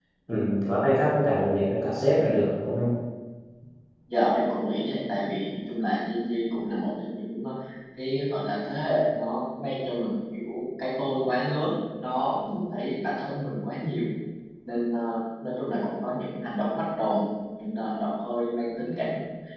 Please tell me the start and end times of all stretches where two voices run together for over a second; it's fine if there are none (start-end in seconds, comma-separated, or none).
none